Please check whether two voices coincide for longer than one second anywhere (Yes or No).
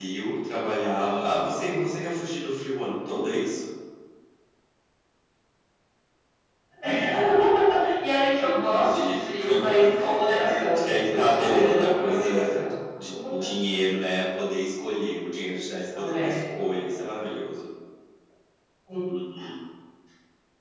Yes